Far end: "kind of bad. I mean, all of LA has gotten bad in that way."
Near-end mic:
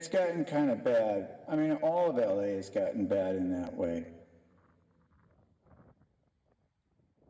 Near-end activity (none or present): none